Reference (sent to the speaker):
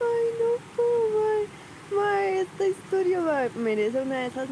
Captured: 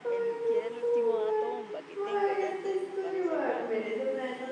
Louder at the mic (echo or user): echo